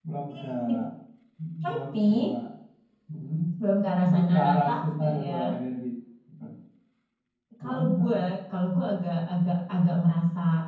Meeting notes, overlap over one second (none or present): present